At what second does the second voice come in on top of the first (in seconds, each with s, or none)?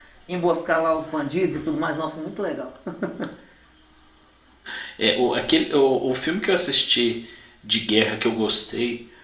none